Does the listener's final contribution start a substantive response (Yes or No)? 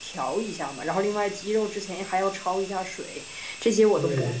No